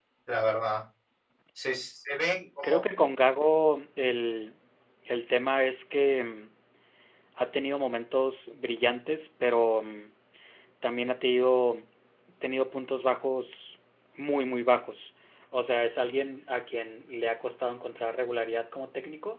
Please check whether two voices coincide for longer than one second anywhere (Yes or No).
No